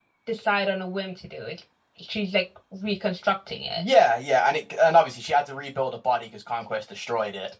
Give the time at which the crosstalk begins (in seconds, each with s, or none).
none